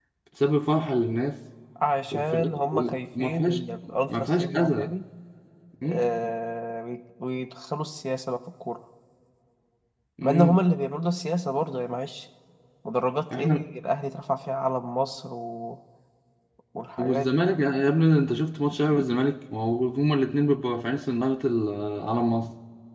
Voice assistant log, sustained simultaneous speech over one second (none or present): present